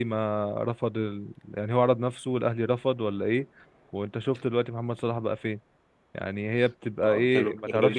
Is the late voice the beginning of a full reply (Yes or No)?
Yes